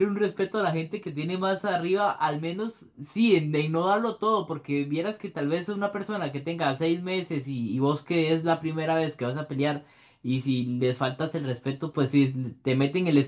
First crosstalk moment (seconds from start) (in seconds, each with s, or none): none